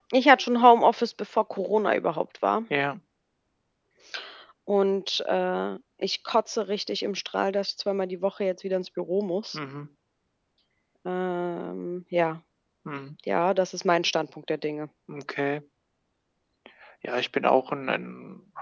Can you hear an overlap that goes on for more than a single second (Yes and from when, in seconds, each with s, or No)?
No